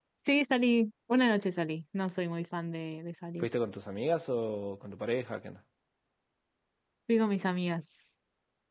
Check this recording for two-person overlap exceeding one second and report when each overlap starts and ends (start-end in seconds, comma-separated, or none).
none